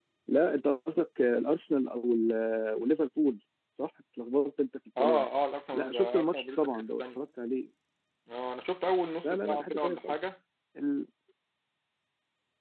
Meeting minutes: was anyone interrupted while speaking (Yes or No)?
Yes